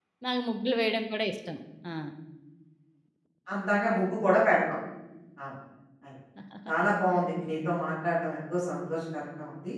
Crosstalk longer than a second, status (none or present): none